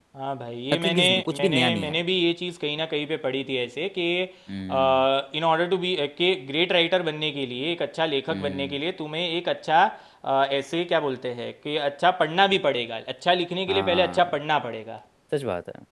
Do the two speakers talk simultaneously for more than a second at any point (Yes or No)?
Yes